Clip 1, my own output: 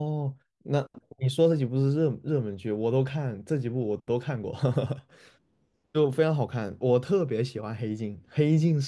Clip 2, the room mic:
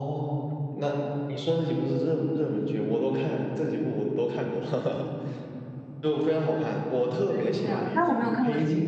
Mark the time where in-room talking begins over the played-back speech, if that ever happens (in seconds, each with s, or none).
7.3 s